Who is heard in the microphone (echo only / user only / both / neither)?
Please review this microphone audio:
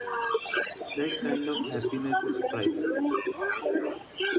both